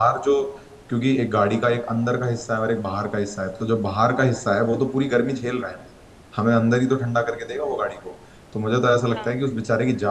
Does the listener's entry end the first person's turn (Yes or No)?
No